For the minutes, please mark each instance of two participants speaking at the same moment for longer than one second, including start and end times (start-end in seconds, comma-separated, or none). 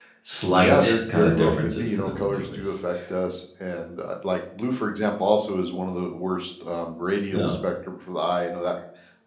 0.6-2.7